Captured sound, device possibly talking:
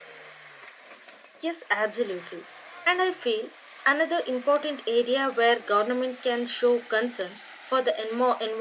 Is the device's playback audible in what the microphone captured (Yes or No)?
No